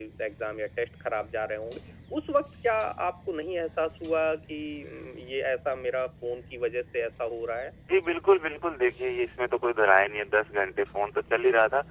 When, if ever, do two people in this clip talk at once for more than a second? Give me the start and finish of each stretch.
none

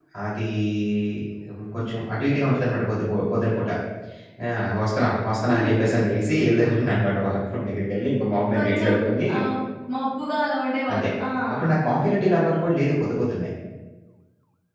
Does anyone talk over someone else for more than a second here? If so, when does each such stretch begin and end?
none

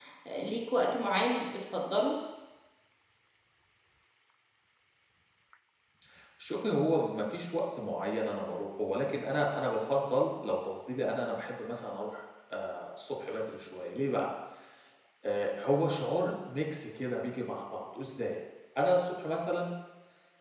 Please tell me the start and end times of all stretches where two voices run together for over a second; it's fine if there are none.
none

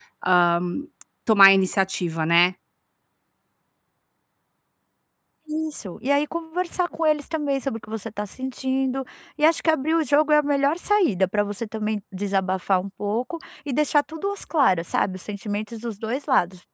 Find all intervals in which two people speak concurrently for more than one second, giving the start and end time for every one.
none

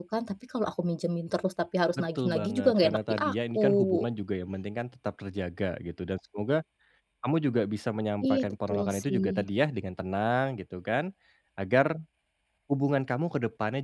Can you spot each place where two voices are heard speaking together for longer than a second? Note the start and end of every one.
2.0-4.0, 8.3-9.5

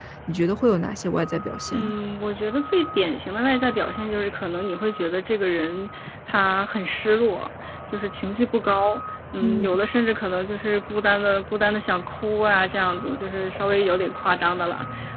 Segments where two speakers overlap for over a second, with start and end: none

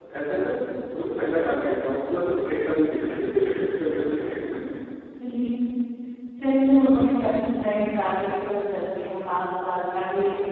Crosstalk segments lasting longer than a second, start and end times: none

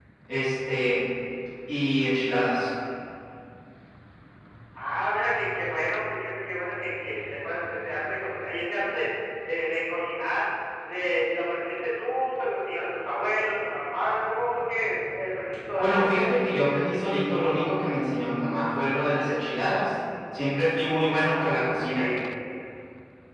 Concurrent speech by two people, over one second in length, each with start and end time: none

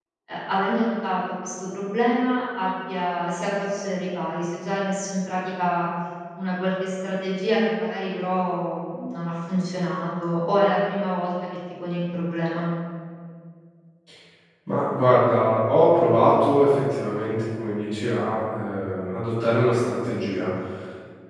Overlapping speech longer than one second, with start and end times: none

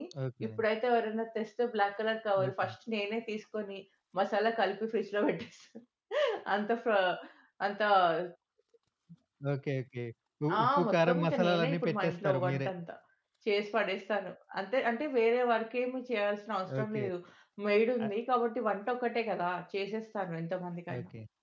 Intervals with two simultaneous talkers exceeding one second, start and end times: 10.6-12.7

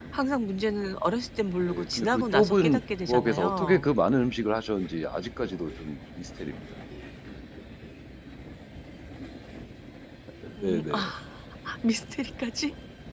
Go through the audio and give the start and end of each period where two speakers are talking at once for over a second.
1.7-3.9

